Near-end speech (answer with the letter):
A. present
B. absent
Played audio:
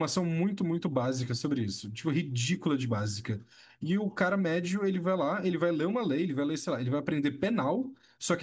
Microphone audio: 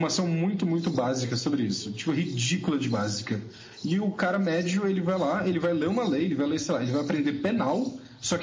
B